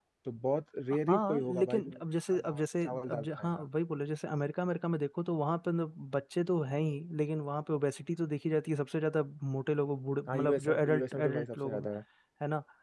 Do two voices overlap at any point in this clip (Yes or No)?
Yes